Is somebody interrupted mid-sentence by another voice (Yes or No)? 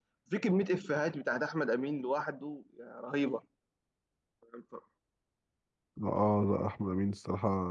No